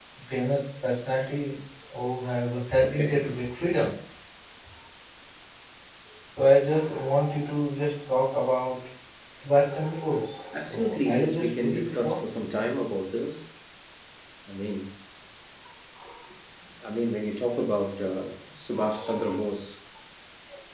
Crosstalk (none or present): present